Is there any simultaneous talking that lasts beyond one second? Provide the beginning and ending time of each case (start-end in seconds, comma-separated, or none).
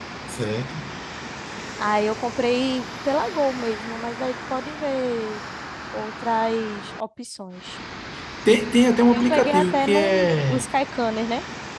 9.1-10.7